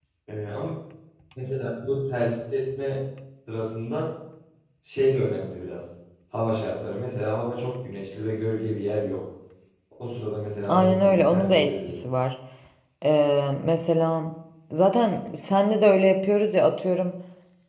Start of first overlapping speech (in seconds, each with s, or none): 10.7 s